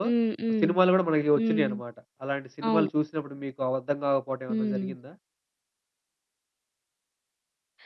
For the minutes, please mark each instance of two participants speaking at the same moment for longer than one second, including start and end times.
none

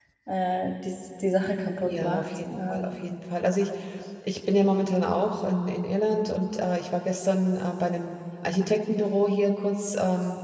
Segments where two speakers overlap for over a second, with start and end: 1.8-3.1

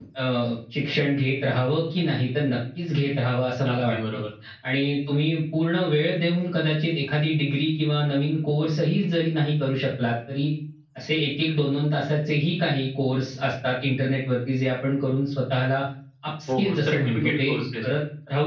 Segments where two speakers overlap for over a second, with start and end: 16.5-17.8

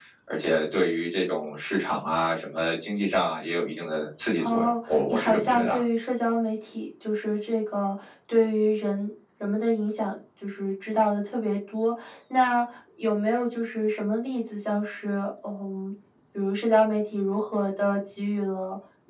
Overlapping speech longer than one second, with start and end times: 4.4-5.8

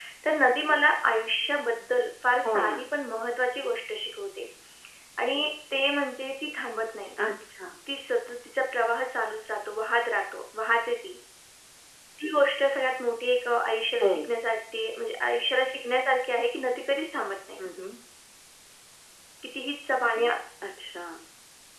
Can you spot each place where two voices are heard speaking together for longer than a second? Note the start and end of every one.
none

